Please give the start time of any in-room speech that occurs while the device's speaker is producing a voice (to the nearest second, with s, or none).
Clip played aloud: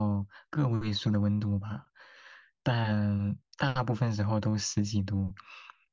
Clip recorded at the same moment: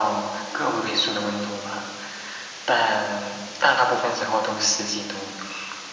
none